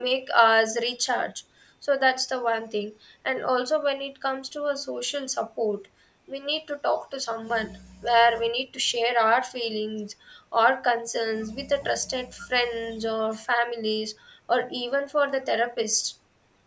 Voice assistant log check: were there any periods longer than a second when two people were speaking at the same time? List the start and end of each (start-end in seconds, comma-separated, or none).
none